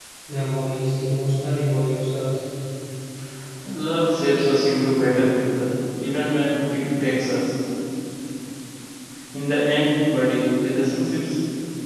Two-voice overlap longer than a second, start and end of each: none

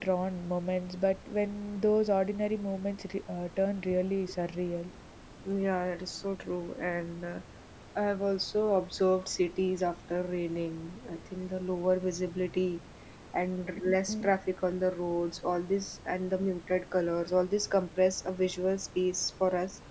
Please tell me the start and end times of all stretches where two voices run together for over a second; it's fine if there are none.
none

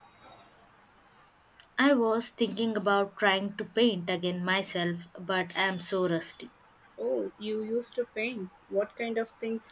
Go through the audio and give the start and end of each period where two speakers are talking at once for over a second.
none

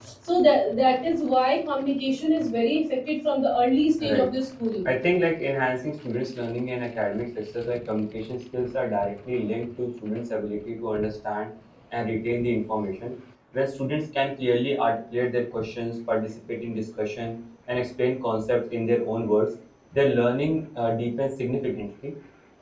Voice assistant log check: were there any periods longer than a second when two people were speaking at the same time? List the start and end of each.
none

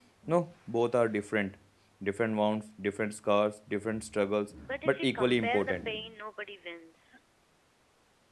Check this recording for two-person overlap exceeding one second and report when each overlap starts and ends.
4.7-6.0

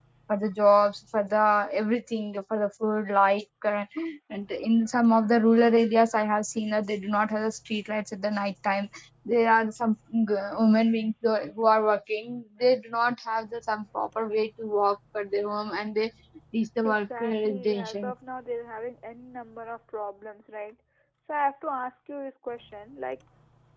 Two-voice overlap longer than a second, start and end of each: 16.8-18.1

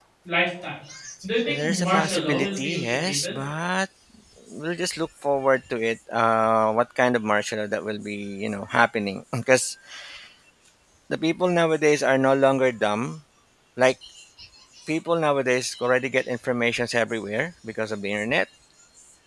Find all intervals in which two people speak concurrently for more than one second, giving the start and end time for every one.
1.5-3.4

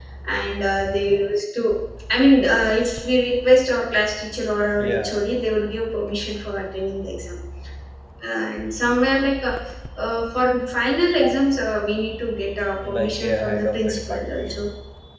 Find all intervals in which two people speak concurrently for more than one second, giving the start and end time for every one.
12.8-14.7

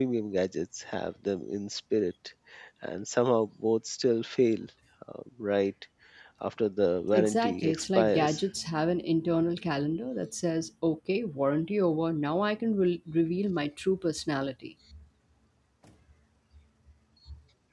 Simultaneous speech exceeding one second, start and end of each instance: 7.1-8.4

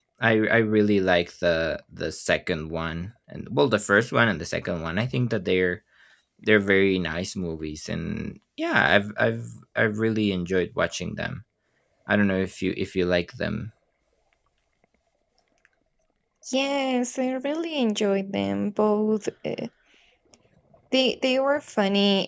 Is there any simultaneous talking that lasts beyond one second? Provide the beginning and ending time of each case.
none

